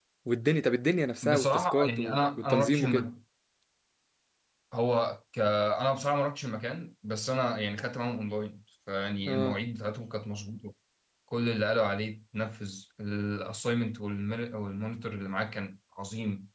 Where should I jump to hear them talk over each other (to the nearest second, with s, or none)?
1 s